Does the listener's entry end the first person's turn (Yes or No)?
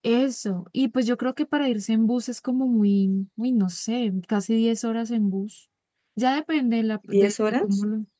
No